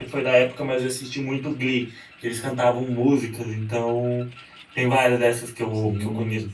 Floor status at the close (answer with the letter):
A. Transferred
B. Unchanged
A